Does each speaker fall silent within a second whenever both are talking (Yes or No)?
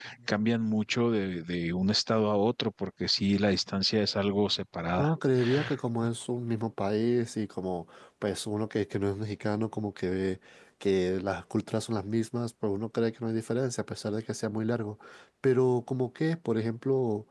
Yes